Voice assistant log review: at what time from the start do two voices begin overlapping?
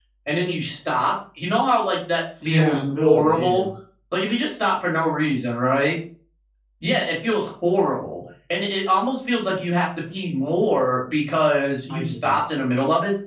2 s

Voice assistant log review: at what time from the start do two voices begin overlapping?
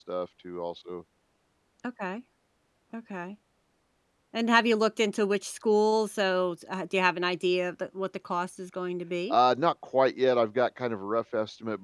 none

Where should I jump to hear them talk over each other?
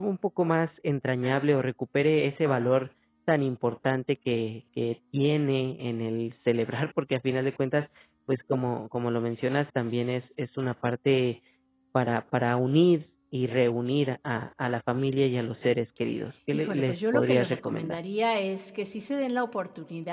17 s

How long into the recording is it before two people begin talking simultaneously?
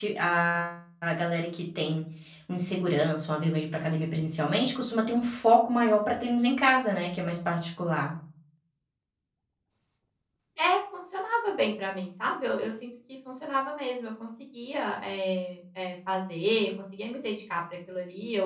none

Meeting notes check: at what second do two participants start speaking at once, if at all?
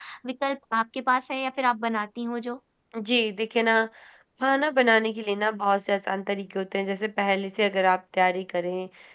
none

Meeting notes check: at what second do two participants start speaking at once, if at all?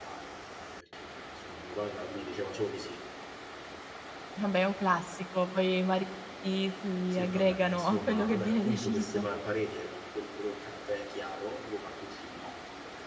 7 s

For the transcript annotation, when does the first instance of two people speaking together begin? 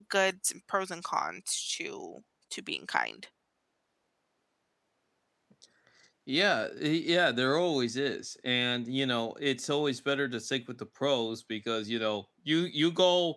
none

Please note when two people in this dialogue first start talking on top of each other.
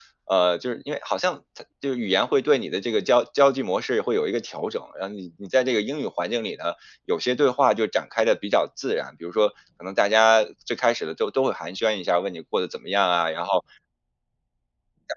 none

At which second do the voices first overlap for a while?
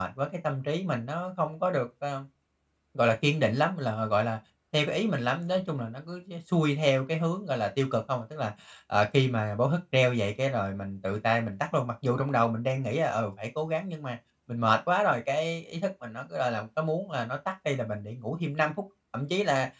none

